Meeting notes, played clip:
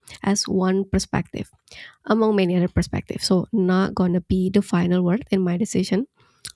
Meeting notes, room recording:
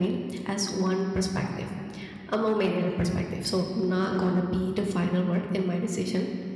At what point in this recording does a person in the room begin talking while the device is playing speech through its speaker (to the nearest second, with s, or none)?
none